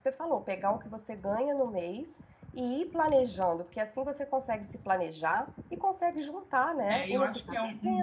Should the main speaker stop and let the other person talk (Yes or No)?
Yes